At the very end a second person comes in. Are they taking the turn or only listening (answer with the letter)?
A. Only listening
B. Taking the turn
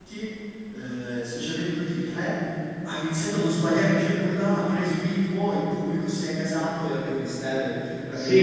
B